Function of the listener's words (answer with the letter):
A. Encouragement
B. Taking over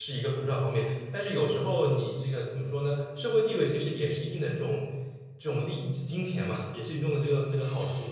B